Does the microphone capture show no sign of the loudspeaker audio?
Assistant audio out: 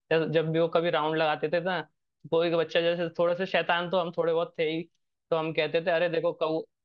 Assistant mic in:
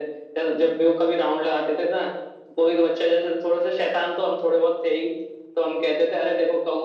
No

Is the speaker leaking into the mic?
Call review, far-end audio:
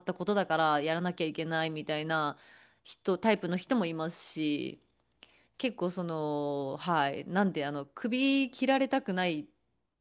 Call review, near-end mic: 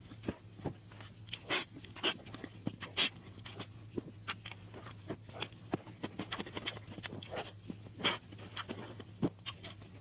No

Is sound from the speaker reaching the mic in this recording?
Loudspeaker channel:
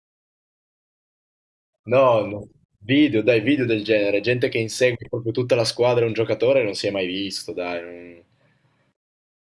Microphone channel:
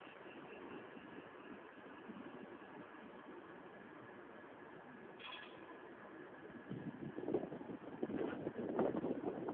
No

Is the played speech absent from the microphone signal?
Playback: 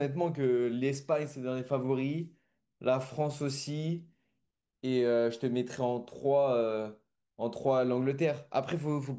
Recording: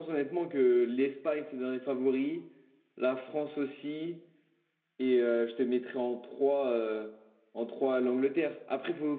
No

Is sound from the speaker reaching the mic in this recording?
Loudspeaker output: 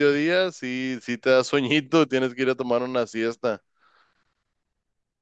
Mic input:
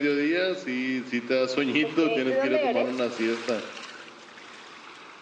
Yes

